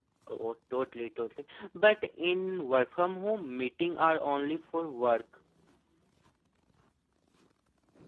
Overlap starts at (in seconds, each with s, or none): none